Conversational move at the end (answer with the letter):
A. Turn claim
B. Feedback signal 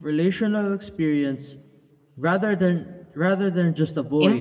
A